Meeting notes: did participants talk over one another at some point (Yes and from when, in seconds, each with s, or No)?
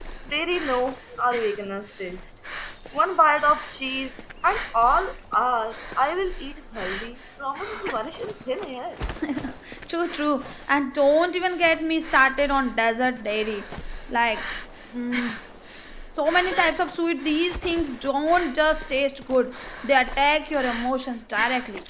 No